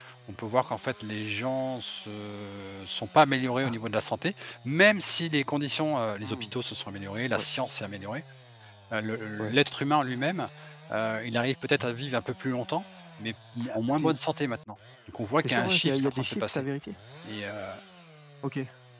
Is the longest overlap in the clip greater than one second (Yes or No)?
Yes